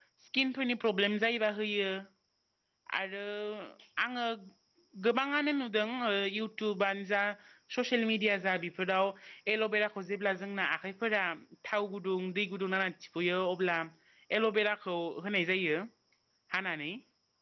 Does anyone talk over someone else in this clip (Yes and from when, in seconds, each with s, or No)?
No